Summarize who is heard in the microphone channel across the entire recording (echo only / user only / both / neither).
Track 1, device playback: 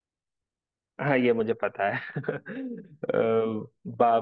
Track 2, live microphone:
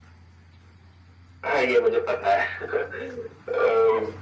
echo only